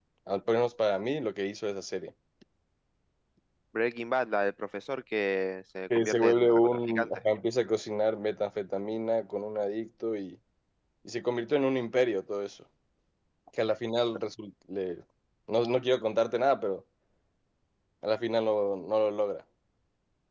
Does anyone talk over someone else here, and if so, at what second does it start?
5.9 s

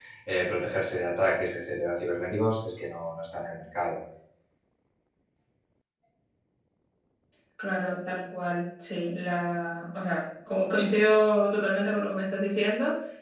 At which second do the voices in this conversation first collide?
none

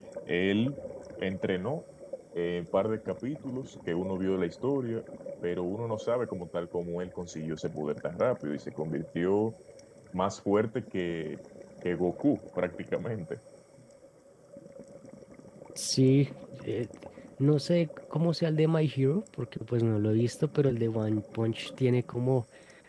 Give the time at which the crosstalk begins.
none

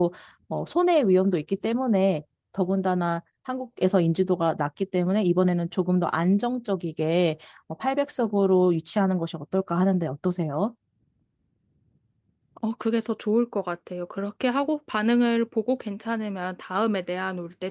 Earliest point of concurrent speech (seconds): none

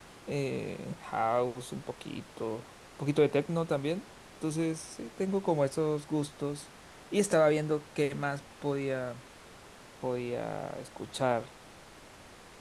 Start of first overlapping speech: none

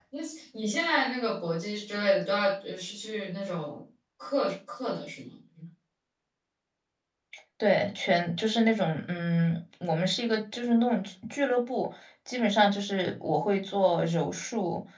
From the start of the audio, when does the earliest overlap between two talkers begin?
none

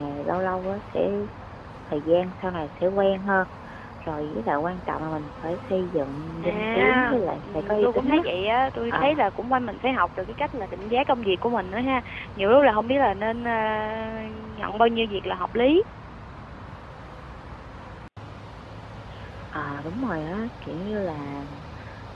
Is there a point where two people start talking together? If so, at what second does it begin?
6.4 s

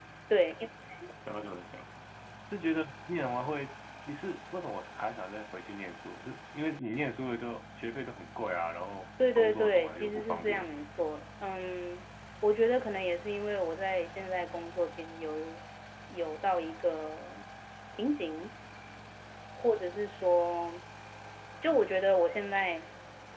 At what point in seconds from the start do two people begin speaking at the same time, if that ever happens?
9.4 s

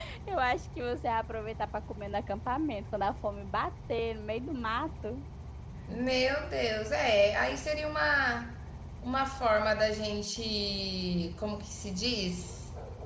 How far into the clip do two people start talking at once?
none

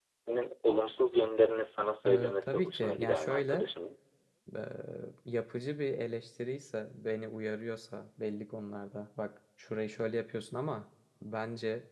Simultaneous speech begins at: 2.0 s

